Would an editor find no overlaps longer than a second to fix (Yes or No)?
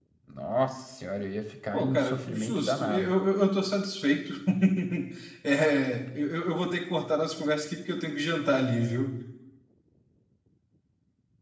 No